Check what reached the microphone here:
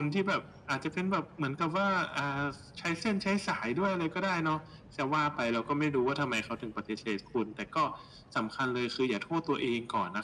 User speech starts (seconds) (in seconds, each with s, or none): none